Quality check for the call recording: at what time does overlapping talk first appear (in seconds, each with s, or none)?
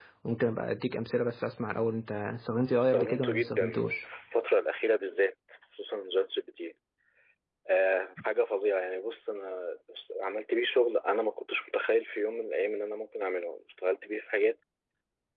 2.8 s